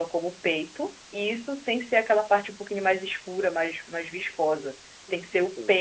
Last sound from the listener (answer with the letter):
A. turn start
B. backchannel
B